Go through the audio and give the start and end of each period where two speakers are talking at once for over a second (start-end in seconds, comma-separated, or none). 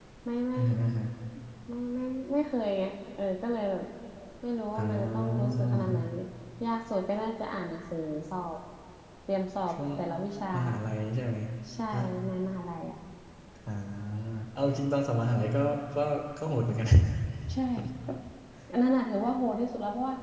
4.8-6.0